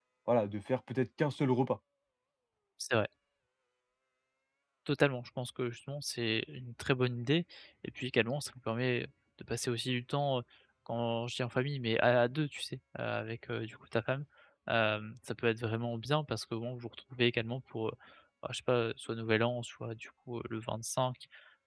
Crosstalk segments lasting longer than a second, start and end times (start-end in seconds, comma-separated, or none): none